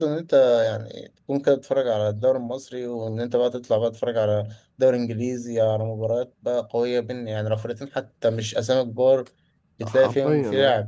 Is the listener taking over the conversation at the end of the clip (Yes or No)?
Yes